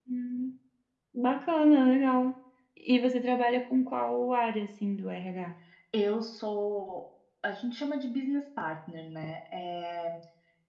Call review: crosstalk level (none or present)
none